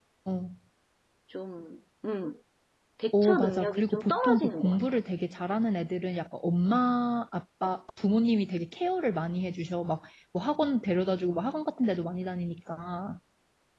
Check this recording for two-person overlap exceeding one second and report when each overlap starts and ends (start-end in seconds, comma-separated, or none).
3.1-5.0